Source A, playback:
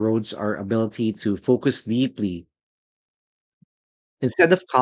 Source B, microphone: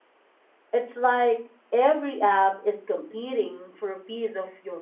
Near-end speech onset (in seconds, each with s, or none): 0.7 s